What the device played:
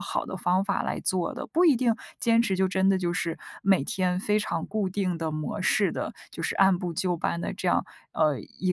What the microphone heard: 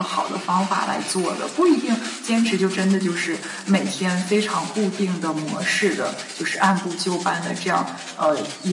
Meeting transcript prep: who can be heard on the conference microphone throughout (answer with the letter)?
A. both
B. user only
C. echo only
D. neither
C